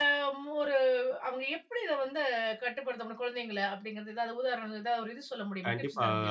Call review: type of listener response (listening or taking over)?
taking over